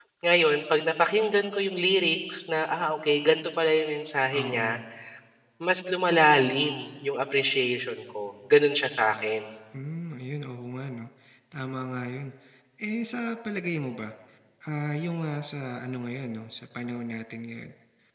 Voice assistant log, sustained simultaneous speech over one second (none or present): none